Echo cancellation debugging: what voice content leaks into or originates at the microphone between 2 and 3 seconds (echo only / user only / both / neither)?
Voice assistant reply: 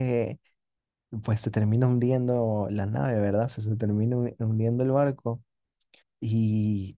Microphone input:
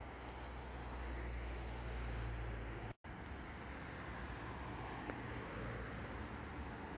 neither